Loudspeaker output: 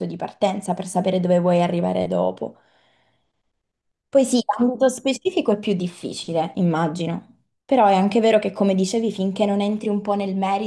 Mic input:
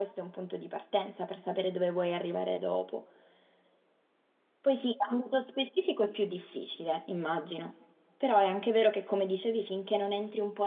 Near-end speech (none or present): none